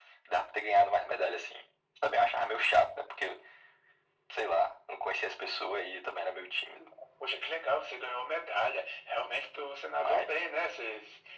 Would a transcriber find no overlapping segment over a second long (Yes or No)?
Yes